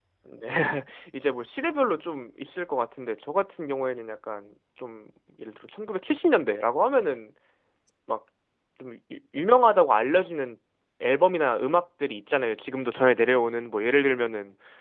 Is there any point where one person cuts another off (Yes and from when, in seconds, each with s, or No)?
No